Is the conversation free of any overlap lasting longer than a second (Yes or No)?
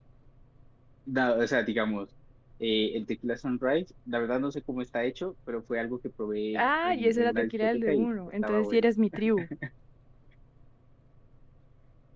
No